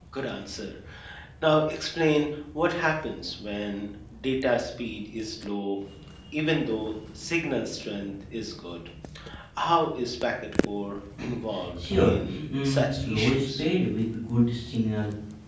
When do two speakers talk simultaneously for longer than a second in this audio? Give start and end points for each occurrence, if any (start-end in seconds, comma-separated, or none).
11.7-13.7